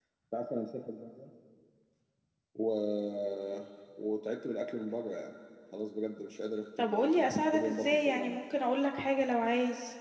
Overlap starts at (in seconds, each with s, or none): 6.8 s